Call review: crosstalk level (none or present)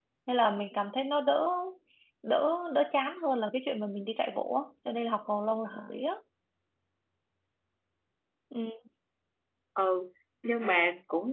none